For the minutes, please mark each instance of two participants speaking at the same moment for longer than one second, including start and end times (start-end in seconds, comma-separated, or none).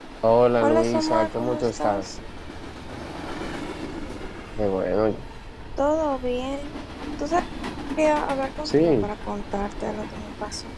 0.6-2.1